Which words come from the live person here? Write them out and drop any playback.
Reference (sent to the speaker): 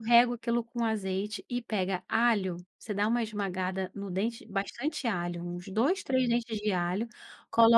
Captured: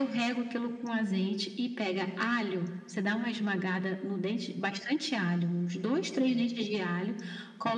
none

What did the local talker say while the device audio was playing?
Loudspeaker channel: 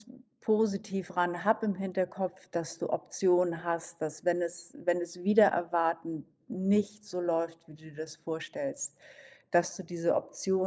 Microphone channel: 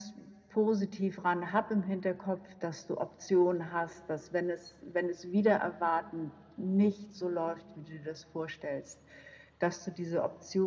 none

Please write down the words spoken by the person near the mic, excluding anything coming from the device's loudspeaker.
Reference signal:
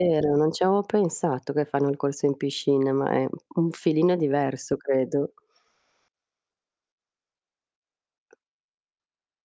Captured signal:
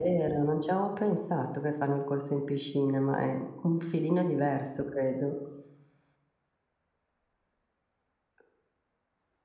none

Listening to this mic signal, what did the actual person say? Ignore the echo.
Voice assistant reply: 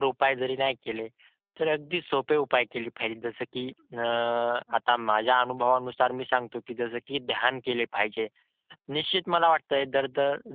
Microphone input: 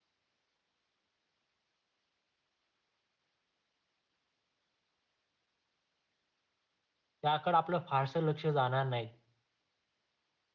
त्याकडे आपलं फारसं लक्ष जाणार नाही.

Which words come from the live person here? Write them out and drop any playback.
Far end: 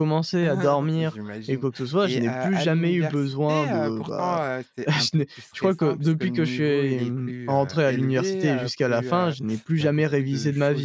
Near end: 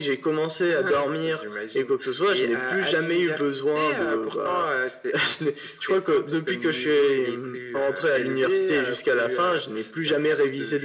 none

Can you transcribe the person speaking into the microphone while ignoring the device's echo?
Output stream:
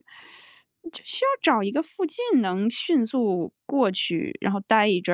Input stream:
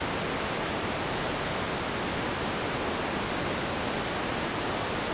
none

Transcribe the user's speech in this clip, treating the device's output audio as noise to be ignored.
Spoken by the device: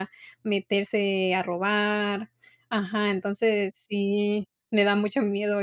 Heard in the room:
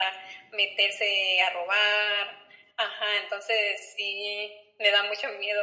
none

